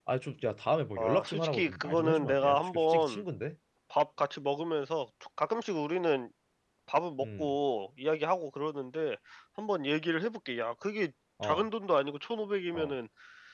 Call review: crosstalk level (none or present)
present